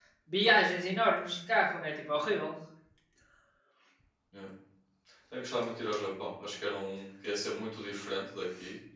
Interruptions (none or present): none